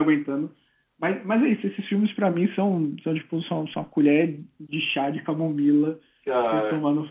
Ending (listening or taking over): listening